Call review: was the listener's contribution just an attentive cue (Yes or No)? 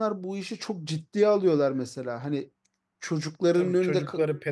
No